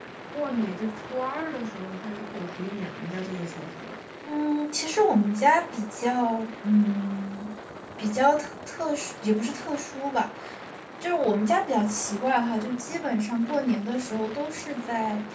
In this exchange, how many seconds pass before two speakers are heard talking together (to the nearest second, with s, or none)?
none